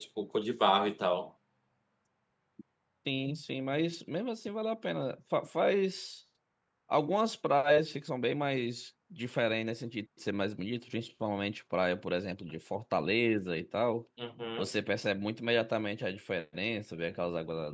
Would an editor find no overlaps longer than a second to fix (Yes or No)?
Yes